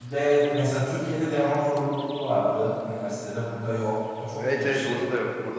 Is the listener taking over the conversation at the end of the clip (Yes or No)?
Yes